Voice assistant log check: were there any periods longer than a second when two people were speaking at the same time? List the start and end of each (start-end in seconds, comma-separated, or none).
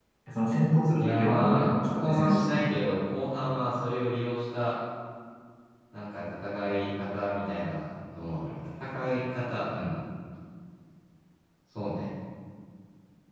1.0-2.7